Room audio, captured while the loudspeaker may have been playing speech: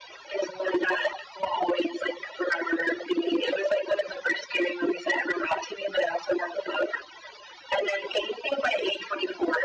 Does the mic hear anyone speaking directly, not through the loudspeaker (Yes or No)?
No